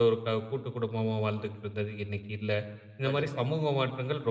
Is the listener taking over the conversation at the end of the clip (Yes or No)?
No